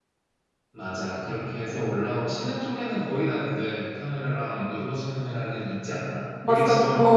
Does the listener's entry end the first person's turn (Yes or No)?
Yes